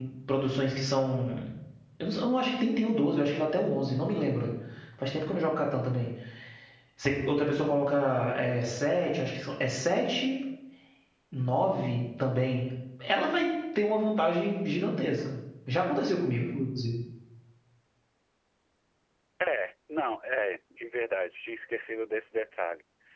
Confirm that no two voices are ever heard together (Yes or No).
Yes